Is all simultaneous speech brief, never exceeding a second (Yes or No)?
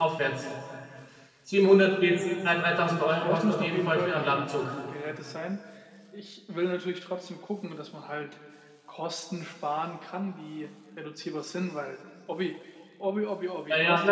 No